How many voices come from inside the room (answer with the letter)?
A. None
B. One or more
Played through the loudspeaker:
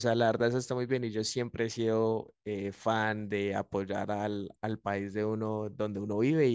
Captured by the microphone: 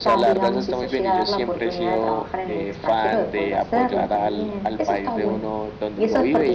B